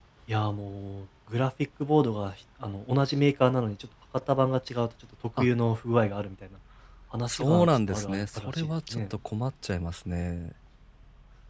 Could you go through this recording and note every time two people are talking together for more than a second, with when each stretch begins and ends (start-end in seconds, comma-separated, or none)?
7.3-9.1